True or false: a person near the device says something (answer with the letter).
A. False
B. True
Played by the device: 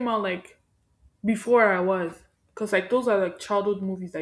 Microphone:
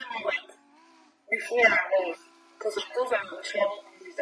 A